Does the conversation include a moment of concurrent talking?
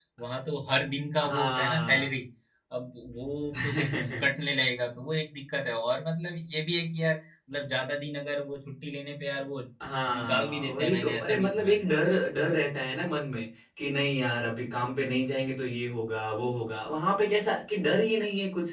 Yes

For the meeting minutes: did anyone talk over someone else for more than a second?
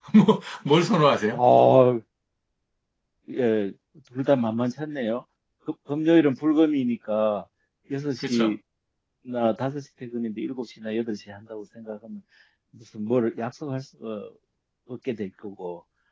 No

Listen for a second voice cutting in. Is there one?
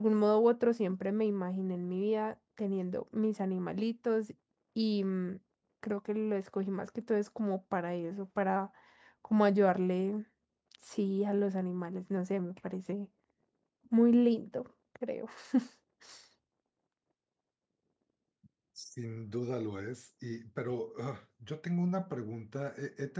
No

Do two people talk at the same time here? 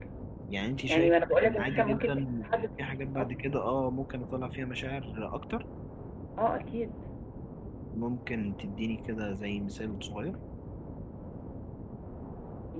Yes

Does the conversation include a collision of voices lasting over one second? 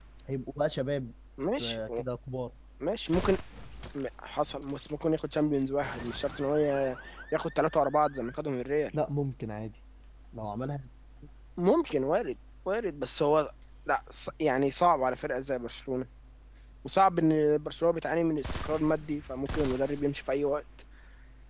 No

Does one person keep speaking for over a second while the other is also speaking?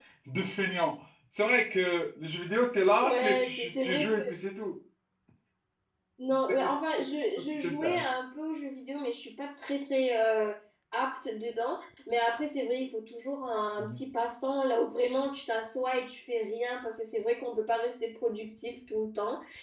Yes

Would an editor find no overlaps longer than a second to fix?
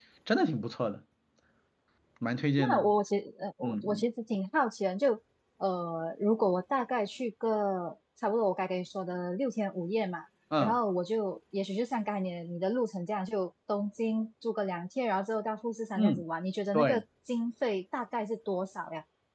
Yes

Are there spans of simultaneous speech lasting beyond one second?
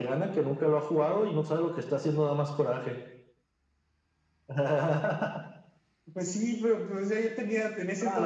No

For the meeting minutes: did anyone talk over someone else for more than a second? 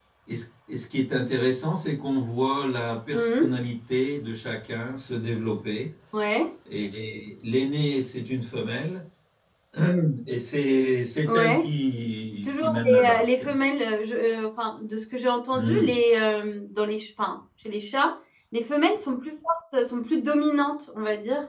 Yes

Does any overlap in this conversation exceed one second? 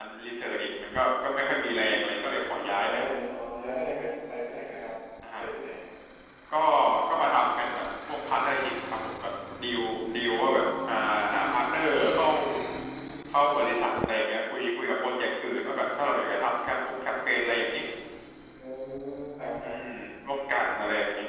No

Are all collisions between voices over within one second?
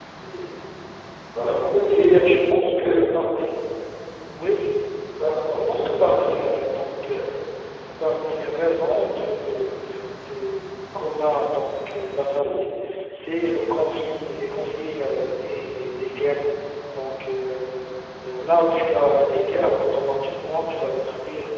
Yes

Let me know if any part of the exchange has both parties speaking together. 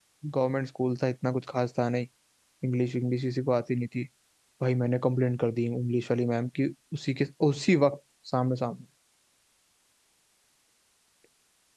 No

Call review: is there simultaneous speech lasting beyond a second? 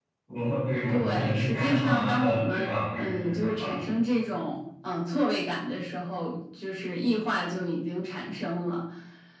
Yes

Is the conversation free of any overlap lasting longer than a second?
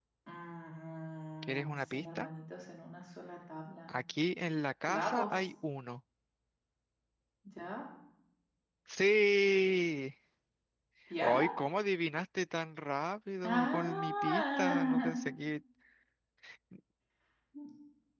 No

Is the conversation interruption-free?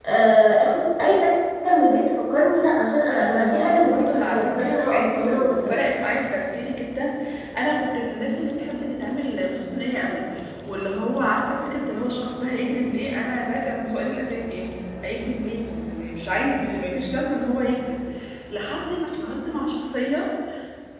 No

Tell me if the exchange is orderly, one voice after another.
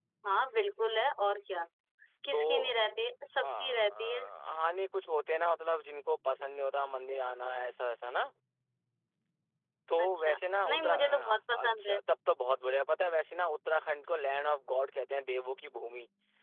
No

